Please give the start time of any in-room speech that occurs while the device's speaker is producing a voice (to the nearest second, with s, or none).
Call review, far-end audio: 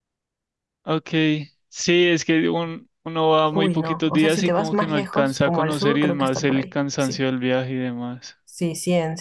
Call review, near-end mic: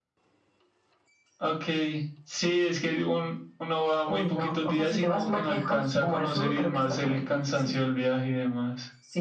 none